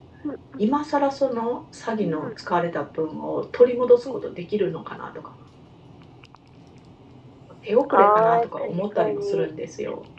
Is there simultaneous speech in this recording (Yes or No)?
Yes